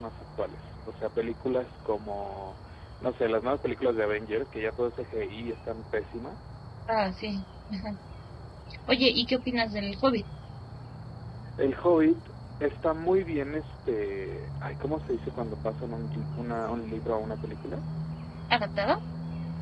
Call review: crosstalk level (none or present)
none